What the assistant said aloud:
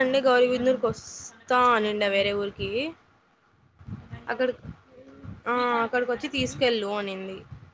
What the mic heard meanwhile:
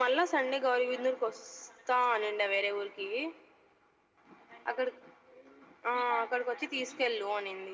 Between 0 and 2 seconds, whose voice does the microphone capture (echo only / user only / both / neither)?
echo only